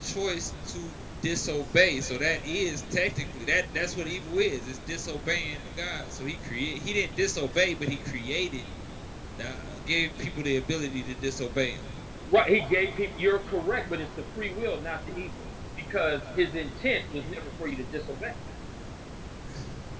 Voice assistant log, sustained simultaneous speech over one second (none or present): none